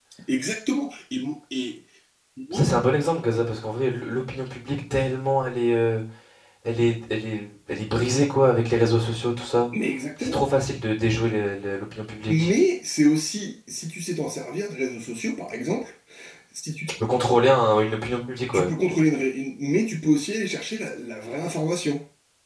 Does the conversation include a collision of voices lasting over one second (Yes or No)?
No